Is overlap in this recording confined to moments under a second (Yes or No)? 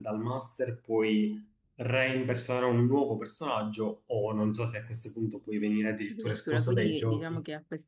No